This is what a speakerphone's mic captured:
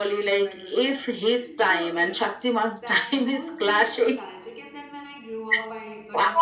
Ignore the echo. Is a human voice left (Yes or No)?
Yes